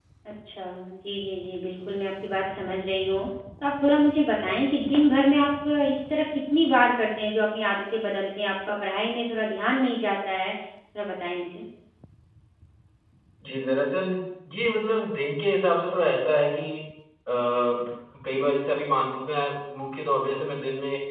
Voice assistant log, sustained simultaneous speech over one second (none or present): none